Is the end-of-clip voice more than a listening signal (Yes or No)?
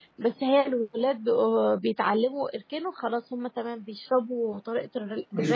Yes